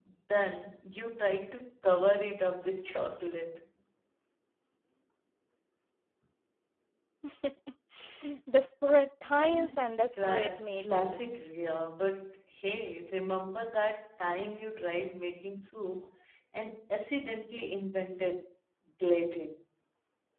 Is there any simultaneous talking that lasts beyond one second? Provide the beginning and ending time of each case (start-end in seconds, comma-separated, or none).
9.4-11.3